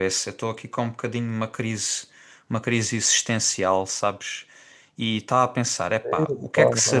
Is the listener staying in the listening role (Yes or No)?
Yes